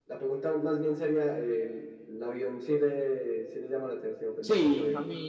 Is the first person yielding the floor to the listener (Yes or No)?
Yes